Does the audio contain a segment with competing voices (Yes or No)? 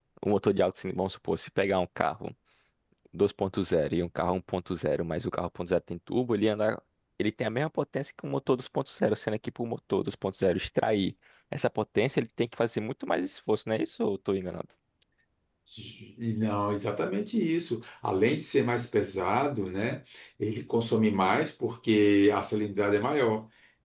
No